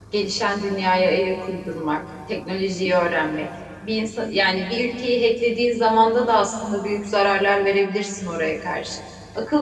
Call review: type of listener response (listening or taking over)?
listening